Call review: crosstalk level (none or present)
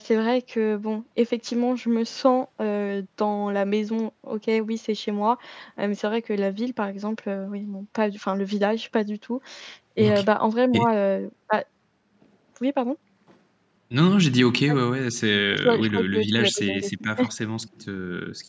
present